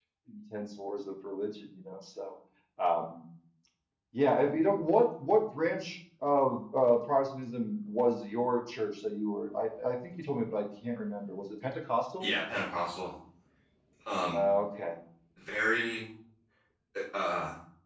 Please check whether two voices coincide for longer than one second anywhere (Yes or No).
No